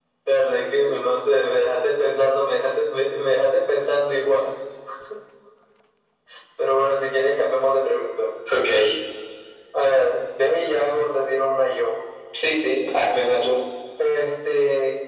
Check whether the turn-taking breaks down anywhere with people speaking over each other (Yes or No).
No